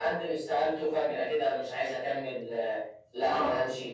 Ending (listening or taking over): listening